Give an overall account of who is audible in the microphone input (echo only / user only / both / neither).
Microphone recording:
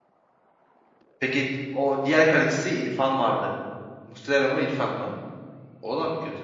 user only